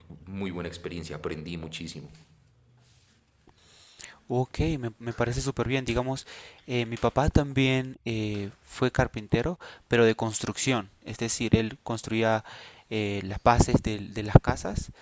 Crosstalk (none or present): none